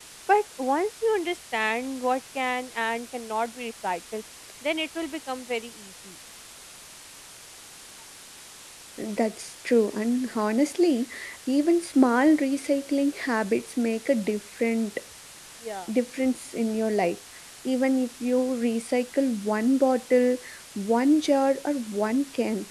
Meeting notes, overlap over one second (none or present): none